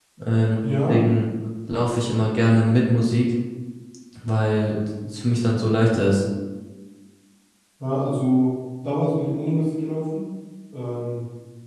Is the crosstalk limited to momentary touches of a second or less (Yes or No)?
Yes